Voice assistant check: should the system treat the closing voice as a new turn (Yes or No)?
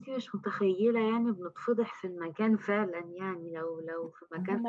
Yes